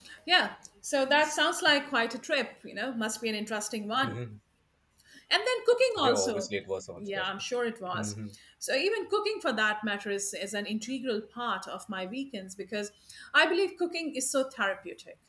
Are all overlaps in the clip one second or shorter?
Yes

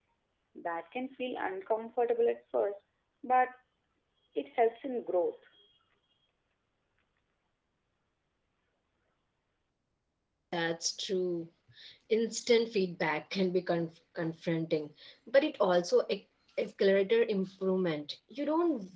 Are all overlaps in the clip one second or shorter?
Yes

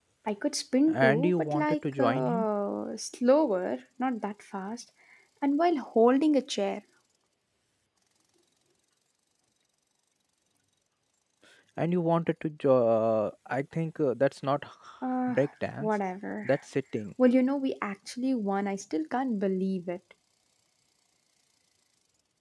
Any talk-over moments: Yes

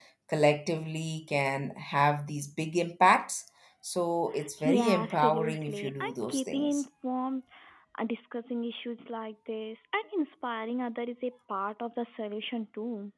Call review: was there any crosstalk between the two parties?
Yes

